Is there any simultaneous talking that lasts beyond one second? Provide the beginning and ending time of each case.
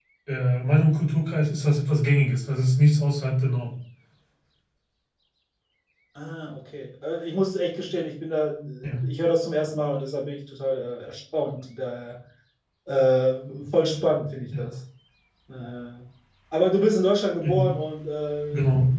none

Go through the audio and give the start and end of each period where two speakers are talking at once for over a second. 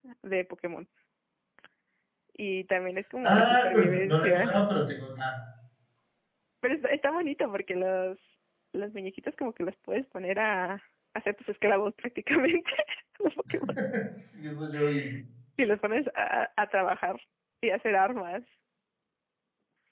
3.3-4.6

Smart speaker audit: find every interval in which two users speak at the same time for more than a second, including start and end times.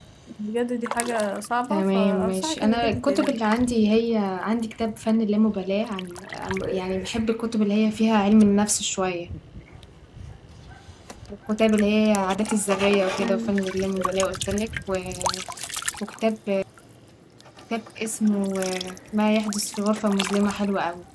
1.7-3.3

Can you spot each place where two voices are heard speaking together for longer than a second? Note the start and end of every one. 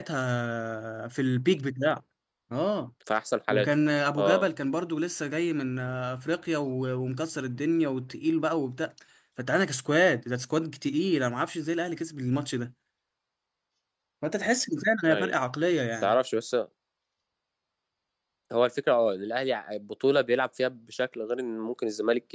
none

